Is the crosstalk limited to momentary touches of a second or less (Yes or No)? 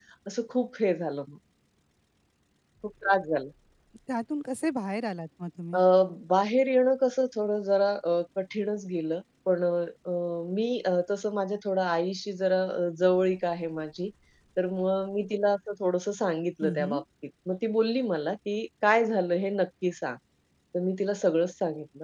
Yes